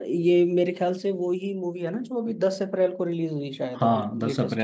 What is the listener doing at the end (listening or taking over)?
taking over